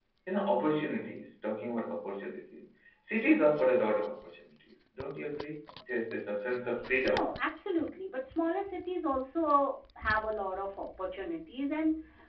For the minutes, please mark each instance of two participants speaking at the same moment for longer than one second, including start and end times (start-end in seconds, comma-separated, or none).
none